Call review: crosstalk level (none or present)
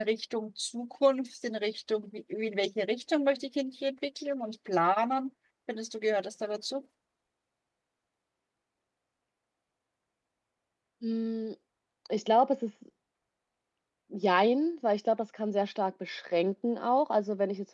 none